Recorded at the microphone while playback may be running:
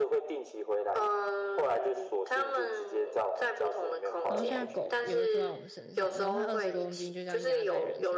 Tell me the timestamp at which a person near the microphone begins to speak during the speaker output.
4 s

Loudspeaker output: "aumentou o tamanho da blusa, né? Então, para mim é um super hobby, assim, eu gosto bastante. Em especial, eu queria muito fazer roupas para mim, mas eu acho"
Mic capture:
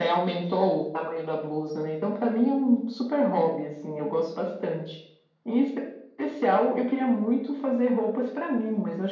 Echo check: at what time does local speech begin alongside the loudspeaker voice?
none

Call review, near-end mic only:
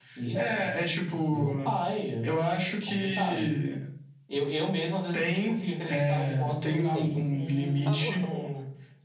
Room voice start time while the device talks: 7 s

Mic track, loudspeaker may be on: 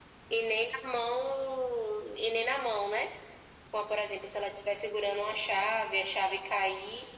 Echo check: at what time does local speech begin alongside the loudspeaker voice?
none

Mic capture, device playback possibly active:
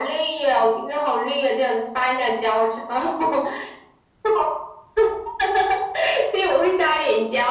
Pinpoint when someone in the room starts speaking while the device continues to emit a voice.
none

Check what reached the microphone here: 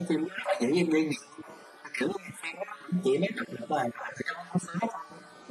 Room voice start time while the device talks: none

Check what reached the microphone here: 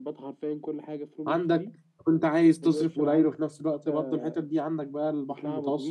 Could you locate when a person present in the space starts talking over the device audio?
1 s

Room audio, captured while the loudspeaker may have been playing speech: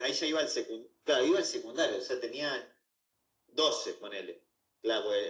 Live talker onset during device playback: none

